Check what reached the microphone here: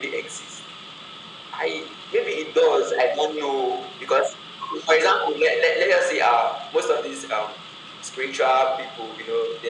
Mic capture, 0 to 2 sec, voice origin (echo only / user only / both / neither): echo only